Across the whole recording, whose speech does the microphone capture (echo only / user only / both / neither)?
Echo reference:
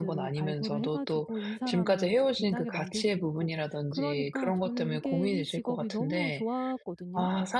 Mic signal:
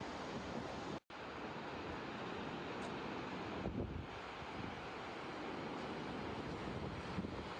neither